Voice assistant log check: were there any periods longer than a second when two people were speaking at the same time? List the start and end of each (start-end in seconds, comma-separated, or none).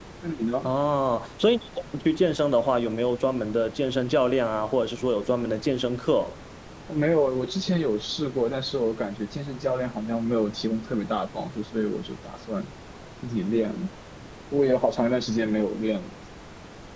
none